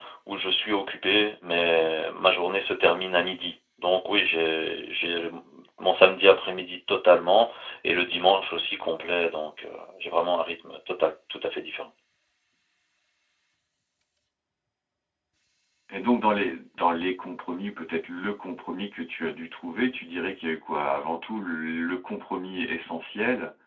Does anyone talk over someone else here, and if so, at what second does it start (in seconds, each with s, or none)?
none